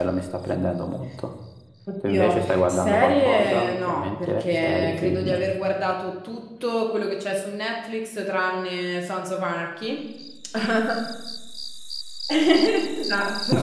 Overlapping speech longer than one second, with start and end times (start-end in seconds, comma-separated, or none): 2.1-5.4